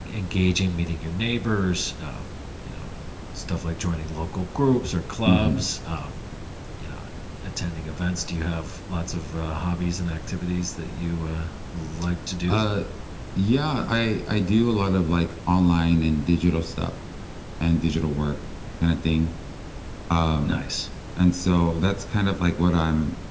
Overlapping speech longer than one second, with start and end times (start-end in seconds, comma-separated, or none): none